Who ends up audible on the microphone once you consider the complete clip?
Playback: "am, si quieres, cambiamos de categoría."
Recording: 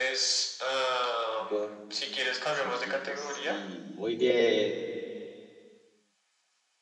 both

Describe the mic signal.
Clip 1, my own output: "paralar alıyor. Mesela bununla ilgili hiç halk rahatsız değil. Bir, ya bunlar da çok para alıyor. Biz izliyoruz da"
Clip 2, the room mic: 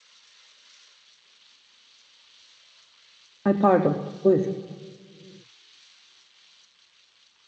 user only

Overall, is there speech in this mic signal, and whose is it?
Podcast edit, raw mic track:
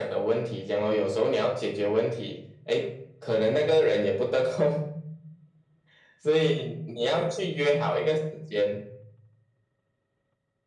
echo only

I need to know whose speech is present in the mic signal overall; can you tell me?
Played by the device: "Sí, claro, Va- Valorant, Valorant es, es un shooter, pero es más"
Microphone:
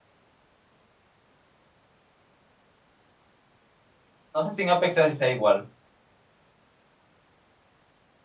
user only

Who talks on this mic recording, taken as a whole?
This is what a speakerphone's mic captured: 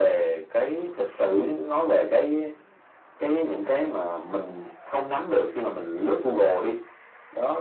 echo only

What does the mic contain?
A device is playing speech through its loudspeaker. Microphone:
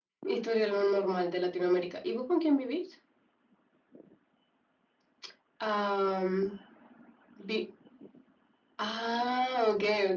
echo only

